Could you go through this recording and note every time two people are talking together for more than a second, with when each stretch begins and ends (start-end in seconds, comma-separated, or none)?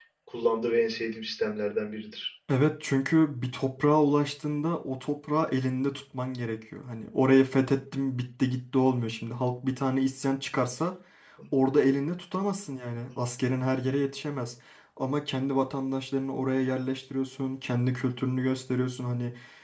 none